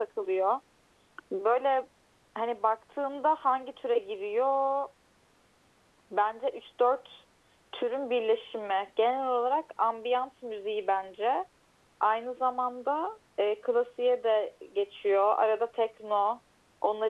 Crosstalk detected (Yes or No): No